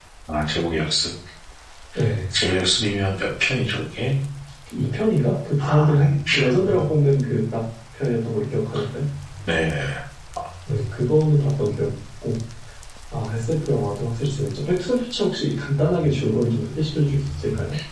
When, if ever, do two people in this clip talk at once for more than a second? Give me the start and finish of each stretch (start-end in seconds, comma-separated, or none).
5.6-6.8